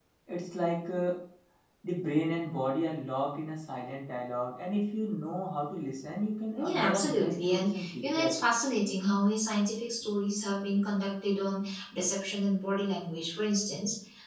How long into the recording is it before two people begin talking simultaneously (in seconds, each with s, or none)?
6.6 s